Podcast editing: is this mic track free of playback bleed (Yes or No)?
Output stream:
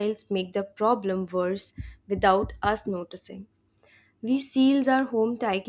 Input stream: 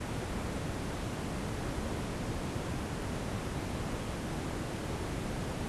Yes